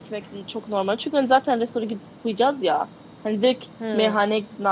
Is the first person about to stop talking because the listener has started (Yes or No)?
No